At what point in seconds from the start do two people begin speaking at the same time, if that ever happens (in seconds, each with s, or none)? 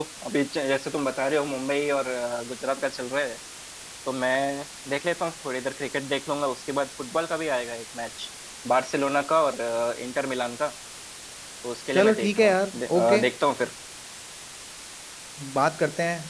11.9 s